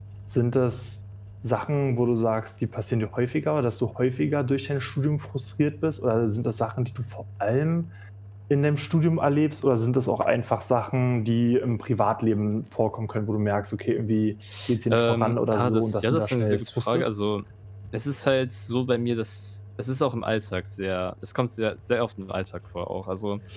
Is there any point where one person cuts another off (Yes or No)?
Yes